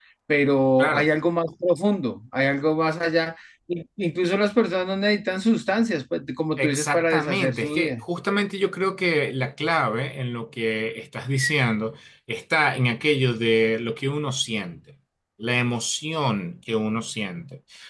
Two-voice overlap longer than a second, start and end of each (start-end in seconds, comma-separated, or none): 6.6-8.0